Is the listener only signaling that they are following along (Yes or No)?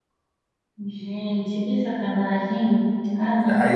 No